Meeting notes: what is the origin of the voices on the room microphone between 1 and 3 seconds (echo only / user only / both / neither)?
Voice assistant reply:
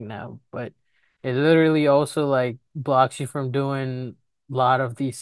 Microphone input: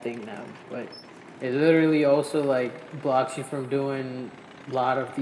echo only